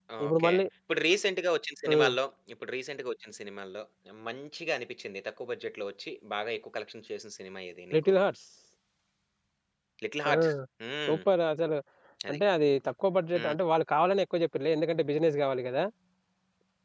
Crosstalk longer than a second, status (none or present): none